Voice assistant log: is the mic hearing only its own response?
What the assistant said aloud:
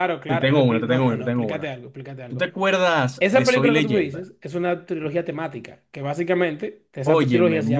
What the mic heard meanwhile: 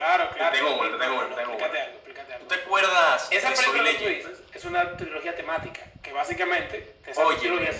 Yes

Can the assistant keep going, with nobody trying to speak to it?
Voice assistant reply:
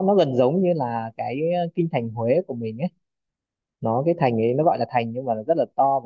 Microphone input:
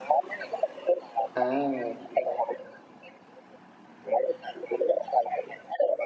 No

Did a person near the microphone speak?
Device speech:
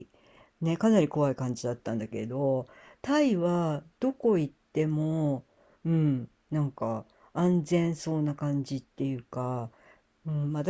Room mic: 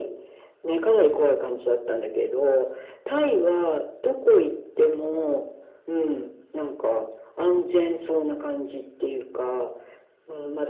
No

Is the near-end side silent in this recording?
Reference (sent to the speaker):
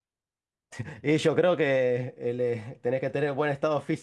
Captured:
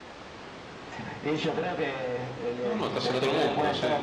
No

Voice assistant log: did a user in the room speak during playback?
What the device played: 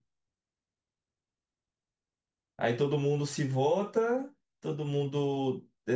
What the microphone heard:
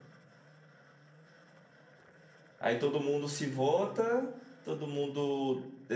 No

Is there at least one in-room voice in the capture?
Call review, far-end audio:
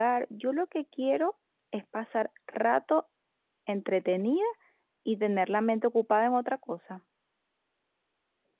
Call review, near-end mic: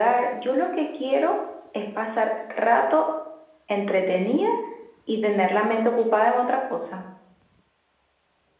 No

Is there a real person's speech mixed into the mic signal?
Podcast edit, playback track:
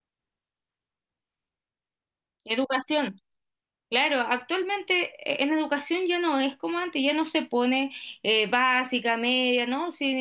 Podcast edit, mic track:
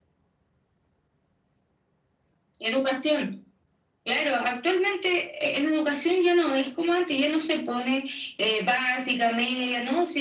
No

